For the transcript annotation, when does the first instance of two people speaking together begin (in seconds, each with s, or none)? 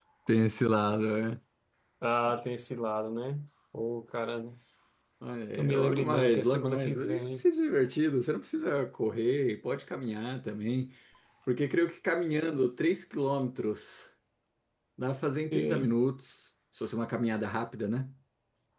5.6 s